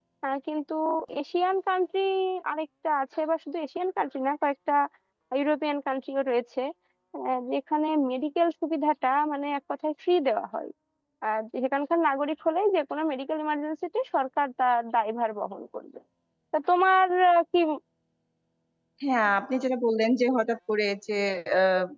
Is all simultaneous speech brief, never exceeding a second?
Yes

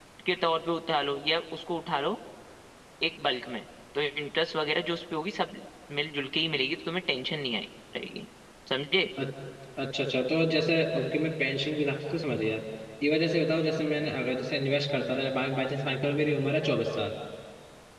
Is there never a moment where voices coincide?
Yes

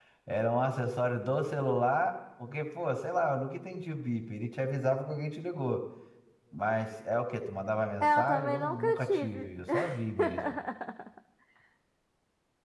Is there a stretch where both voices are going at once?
Yes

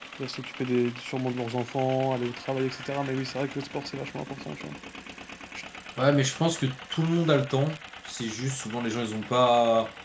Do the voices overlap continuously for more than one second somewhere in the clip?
No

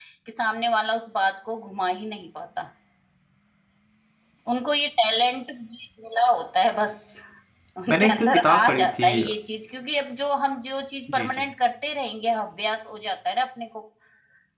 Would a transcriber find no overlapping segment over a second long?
No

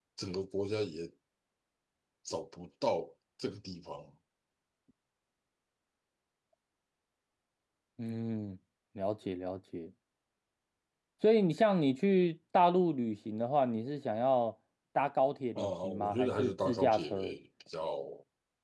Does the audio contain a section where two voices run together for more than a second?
Yes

